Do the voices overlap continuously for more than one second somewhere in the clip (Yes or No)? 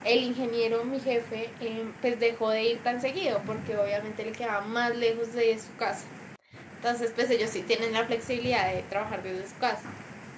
No